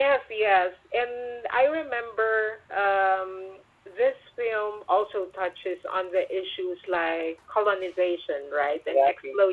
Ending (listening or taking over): listening